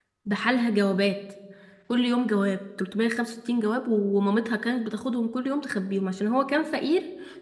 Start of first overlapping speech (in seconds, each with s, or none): none